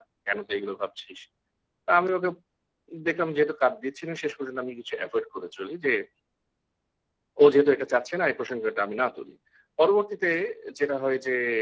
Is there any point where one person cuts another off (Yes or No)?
No